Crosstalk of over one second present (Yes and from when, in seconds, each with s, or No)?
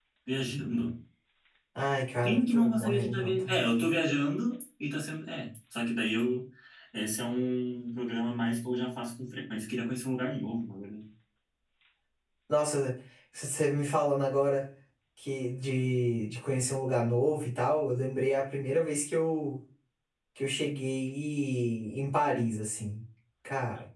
Yes, from 2.2 s